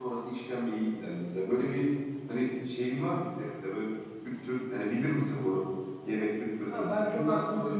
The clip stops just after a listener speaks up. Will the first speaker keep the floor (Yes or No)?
No